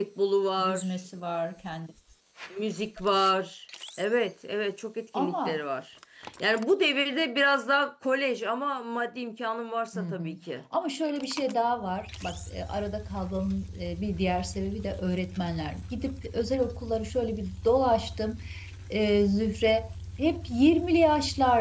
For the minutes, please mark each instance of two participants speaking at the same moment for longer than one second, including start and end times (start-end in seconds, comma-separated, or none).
none